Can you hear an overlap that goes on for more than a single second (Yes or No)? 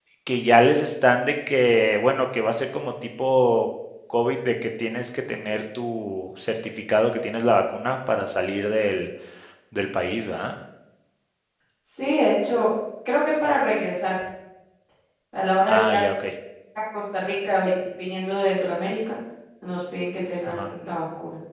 No